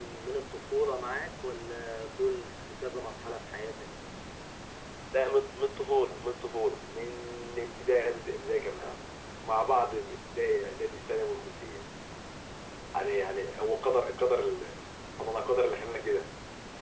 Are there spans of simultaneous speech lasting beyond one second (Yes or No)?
No